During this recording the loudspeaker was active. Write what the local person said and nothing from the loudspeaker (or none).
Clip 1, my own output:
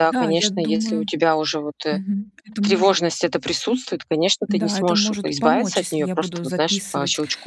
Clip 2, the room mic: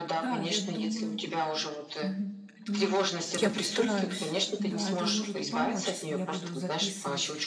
Я постараюсь.